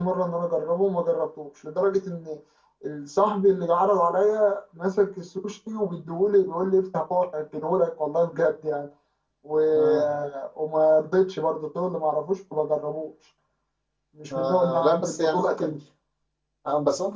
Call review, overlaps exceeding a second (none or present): present